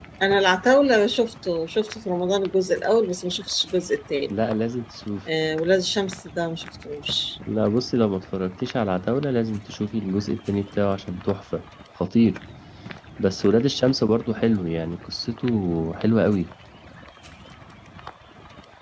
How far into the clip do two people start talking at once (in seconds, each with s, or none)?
none